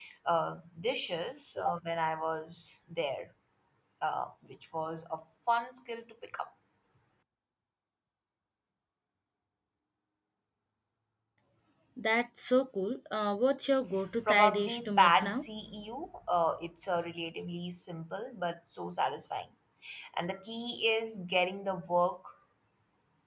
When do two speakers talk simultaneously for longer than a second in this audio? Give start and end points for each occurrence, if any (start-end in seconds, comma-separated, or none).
14.3-15.5